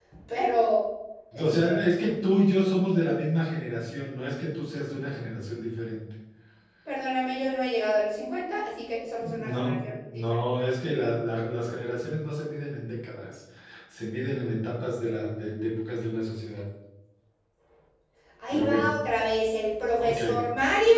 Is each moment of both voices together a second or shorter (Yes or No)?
No